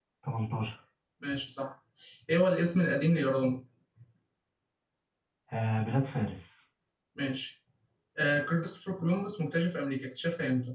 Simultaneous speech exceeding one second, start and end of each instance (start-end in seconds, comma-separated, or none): none